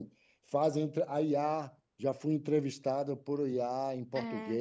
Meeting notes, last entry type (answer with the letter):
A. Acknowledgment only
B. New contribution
B